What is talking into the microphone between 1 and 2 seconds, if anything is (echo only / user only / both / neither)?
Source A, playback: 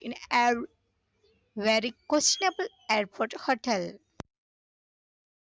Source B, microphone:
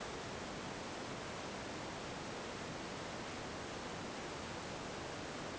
neither